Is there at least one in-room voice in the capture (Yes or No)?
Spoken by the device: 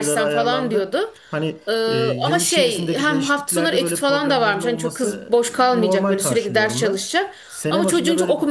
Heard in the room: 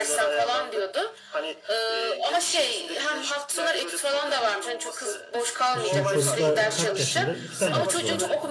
Yes